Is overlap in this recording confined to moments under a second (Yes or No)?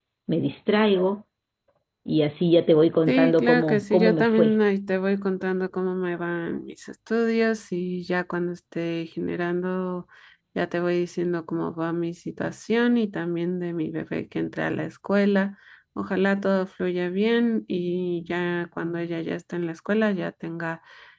No